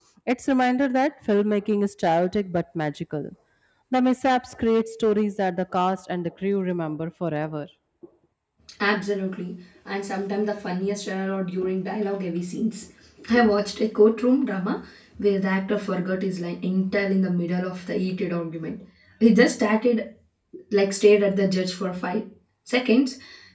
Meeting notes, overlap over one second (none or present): none